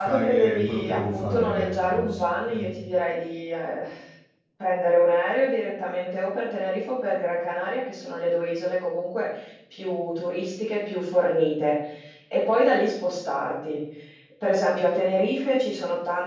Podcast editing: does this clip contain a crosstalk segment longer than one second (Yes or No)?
Yes